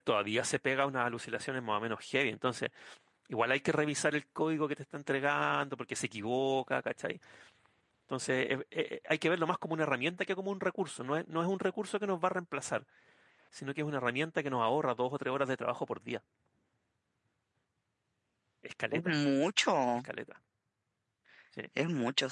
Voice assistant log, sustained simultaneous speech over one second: none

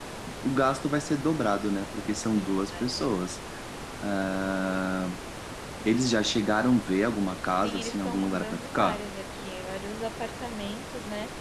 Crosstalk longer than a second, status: present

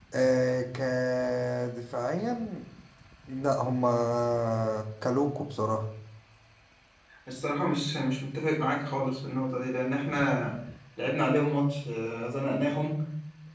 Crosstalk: none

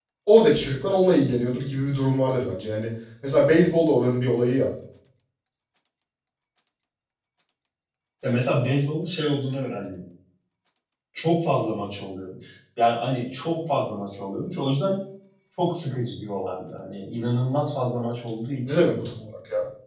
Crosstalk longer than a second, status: none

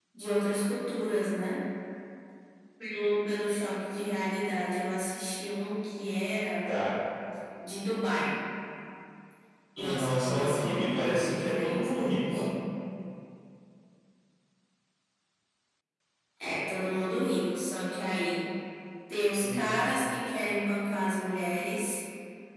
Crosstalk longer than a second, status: present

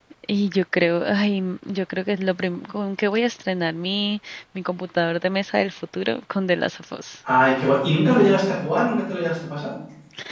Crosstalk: none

